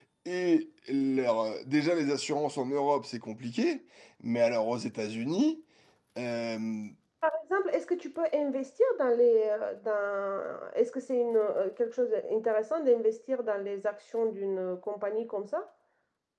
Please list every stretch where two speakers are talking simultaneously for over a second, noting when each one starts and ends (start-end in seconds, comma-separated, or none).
none